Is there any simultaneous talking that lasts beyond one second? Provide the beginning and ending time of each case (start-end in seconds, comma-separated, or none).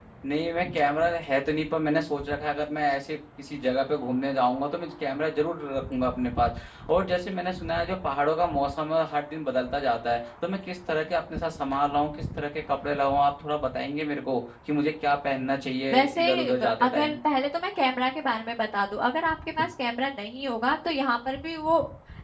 15.9-17.1